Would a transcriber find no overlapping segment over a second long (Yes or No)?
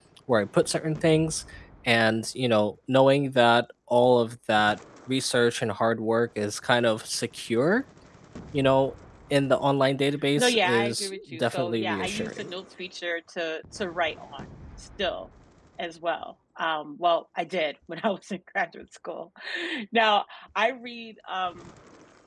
No